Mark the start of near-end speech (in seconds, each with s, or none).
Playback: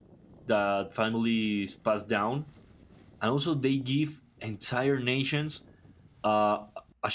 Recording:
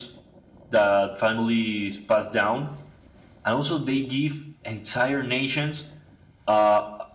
none